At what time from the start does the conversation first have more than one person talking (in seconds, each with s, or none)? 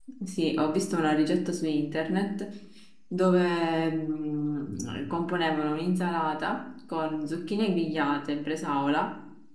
none